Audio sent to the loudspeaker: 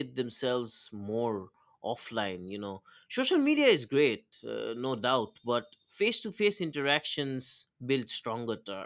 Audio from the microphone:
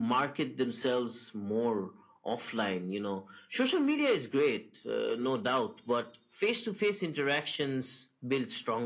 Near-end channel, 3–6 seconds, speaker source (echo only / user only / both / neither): echo only